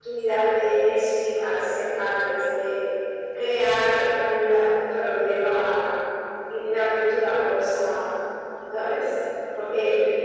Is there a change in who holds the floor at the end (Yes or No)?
No